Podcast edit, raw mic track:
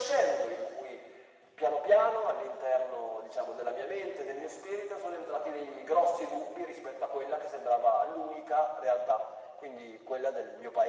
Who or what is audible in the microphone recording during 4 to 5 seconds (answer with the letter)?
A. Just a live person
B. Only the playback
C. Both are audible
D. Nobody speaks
B